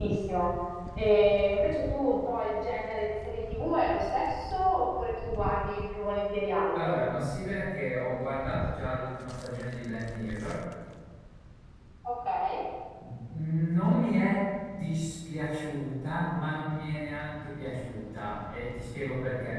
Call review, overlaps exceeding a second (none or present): none